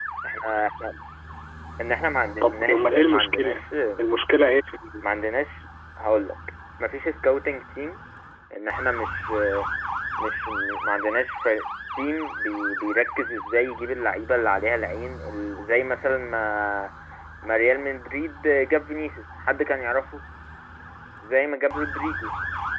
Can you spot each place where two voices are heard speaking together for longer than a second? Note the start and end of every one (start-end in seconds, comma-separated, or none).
2.4-3.6